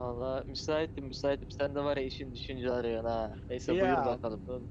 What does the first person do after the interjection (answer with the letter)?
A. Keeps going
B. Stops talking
B